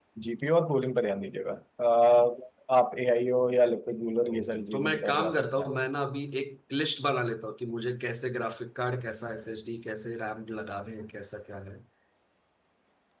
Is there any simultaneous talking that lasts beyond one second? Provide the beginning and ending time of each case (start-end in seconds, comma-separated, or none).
4.3-5.7